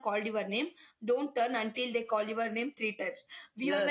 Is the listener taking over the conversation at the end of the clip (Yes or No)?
No